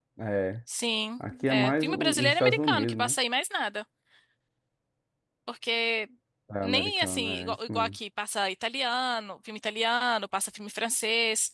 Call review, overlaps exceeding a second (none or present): present